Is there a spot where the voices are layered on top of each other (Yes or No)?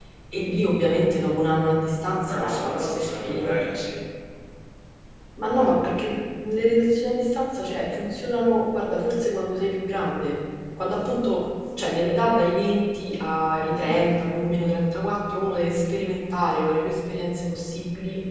Yes